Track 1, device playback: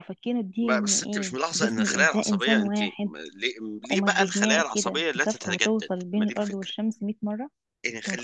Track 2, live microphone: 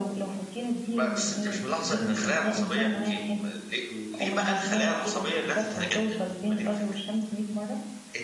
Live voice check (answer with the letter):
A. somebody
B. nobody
B